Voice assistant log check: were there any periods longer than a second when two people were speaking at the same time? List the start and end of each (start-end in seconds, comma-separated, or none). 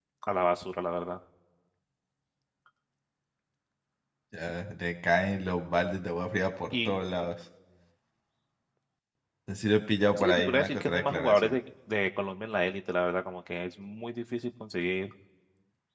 10.2-11.6